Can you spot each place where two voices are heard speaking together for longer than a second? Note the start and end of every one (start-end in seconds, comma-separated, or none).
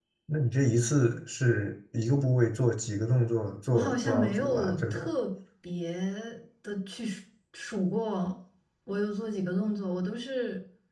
3.7-5.0